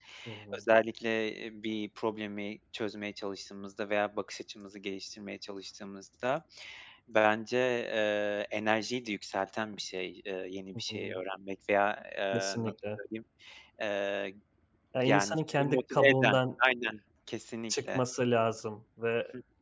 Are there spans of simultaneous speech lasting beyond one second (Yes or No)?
Yes